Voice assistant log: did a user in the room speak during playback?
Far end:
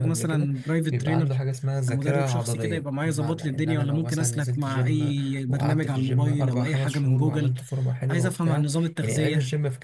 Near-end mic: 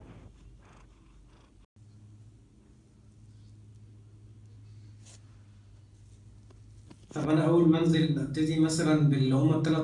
Yes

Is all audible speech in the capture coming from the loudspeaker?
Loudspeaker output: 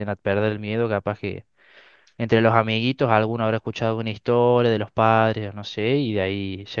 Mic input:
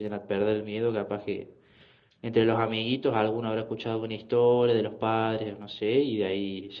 Yes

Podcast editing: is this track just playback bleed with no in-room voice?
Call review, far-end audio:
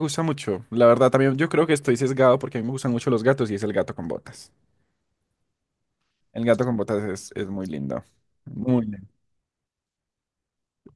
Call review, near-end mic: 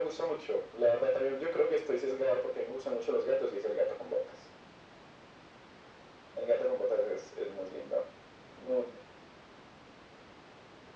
Yes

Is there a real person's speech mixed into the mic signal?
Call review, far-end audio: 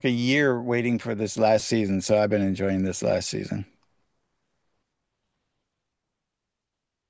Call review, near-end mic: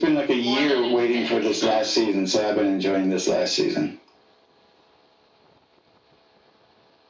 Yes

